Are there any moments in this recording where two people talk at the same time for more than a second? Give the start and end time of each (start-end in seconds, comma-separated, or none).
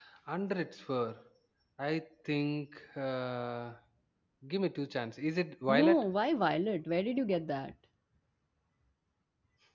none